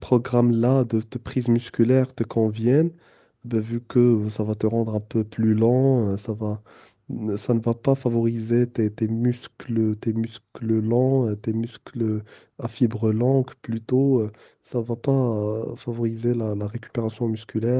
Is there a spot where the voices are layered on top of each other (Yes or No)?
No